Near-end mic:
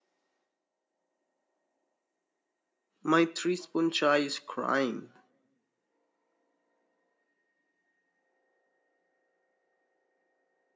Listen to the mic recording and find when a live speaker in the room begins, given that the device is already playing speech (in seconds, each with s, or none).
3.0 s